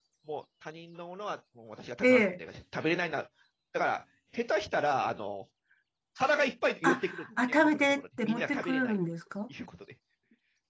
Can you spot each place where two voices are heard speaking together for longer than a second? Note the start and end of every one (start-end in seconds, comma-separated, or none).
6.8-9.0